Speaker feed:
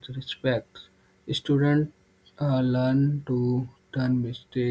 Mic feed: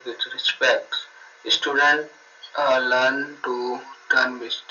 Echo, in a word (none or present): present